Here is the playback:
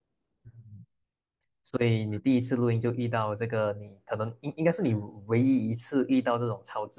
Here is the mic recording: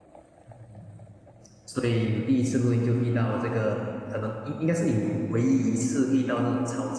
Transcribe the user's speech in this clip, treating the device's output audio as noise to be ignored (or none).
none